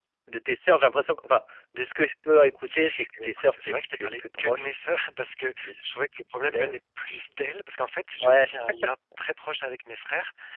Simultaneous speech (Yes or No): Yes